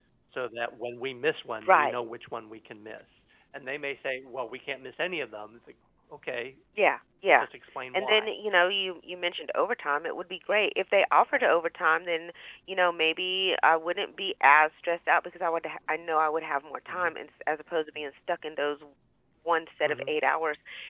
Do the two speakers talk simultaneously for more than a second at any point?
No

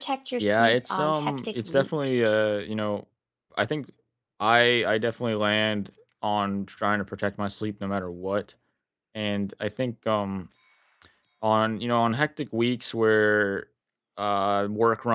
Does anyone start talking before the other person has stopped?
Yes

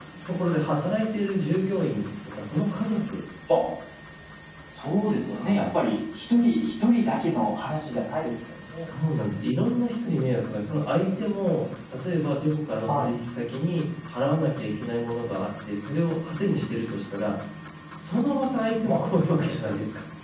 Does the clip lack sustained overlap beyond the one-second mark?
Yes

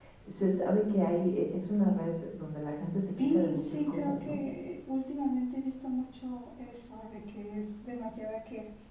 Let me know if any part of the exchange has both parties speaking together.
Yes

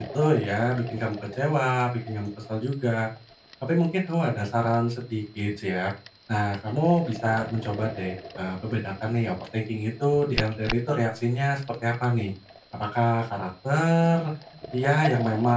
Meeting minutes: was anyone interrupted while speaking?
No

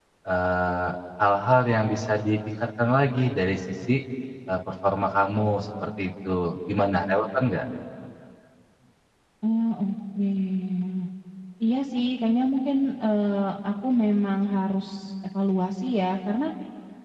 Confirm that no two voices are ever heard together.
Yes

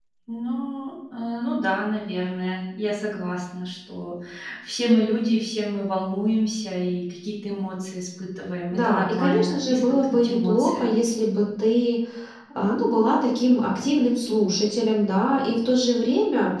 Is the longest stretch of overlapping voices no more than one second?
No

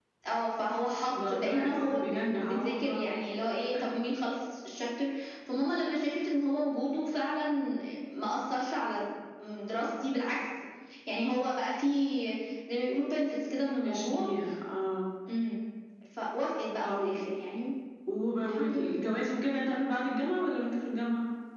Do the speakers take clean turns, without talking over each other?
No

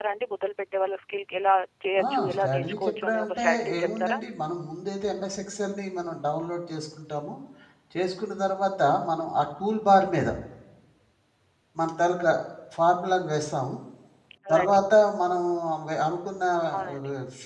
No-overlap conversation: No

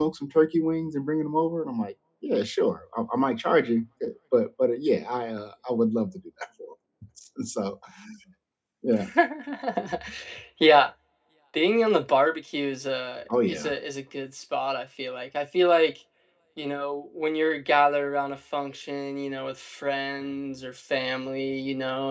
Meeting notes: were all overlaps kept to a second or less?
Yes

